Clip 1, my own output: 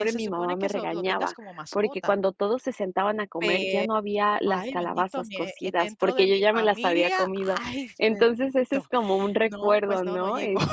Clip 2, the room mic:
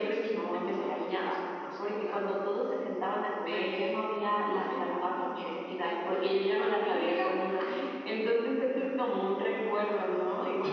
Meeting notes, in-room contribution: none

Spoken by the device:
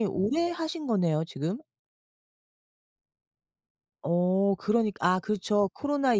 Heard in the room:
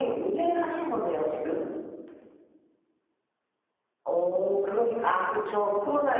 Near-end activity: none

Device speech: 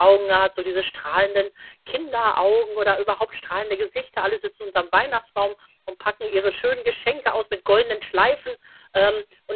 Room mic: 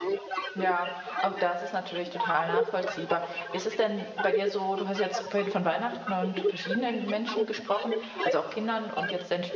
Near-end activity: present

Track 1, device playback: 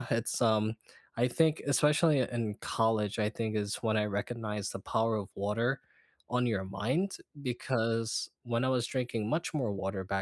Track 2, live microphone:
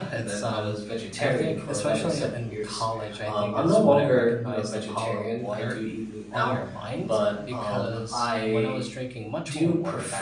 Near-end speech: present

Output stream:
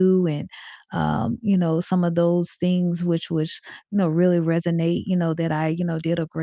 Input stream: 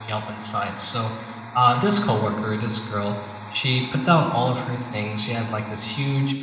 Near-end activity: present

